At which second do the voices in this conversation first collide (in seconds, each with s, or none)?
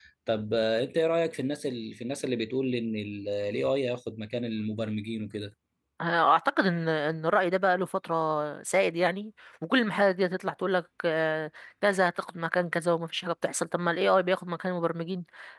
none